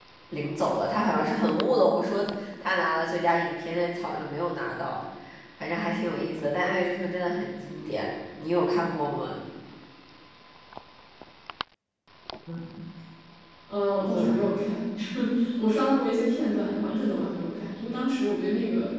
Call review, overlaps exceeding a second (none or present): none